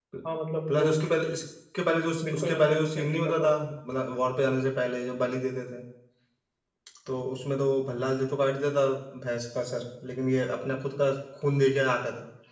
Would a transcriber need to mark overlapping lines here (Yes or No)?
Yes